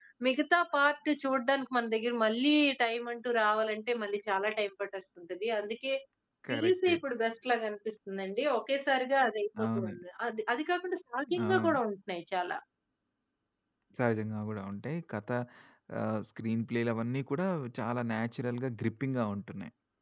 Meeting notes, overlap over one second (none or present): none